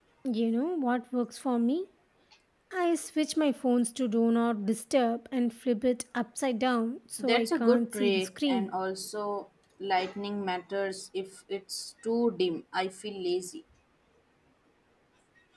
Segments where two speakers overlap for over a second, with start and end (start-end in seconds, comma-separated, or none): 7.2-8.7